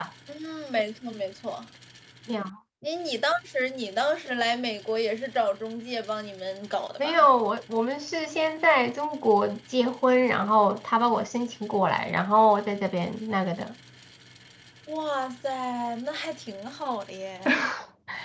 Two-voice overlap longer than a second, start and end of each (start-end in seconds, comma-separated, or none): none